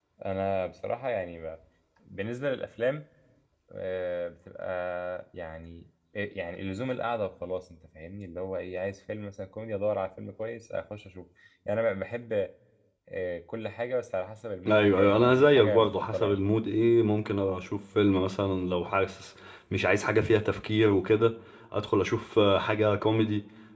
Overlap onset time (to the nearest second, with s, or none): 15 s